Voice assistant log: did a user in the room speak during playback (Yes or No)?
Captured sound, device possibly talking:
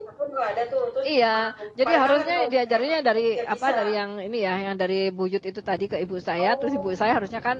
Yes